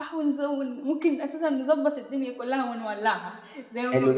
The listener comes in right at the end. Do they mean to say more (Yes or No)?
Yes